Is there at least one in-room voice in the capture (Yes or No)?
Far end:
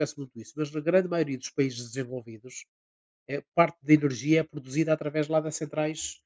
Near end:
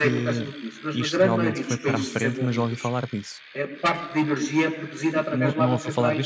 Yes